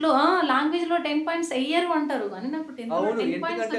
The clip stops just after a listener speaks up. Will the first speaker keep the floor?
No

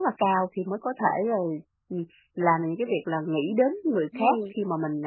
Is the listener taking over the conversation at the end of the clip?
No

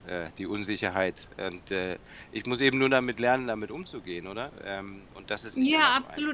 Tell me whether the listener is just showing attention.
No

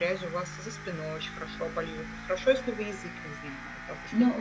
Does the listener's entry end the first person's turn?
Yes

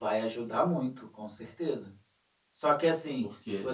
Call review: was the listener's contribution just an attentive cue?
Yes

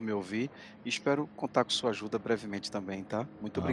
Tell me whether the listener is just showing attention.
No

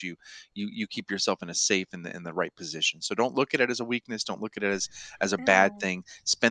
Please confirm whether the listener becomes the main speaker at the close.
No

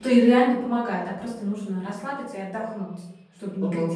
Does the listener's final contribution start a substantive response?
Yes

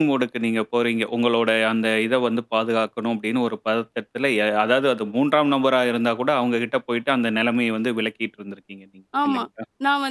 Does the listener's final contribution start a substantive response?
Yes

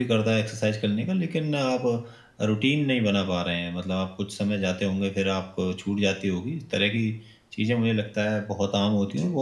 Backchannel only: Yes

